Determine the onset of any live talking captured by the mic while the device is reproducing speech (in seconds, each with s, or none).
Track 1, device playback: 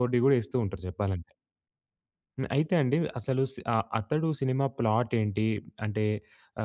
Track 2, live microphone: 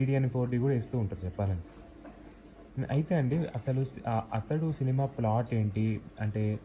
none